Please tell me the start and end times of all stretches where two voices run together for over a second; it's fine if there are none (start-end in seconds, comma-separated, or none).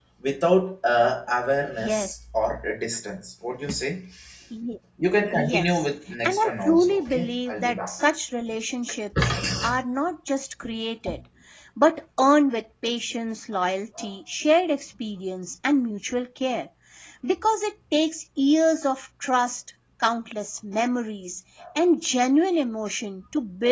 6.2-7.9